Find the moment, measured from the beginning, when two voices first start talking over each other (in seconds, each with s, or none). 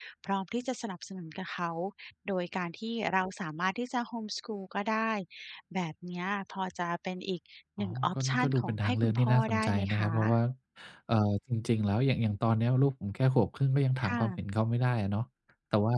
7.8 s